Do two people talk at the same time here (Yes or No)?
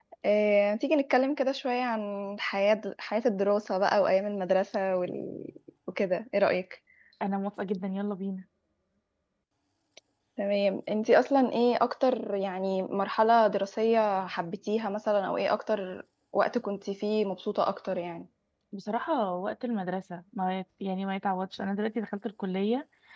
No